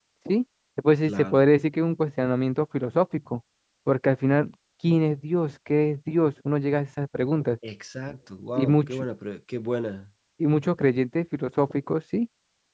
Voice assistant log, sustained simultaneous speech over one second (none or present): none